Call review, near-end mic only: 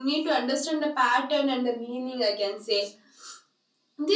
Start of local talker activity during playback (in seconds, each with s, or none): none